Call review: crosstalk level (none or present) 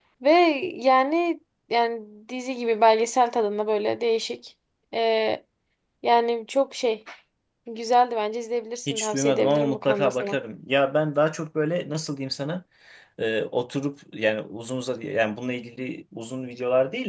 present